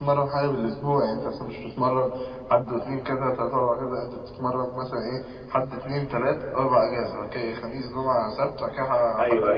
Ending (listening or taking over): taking over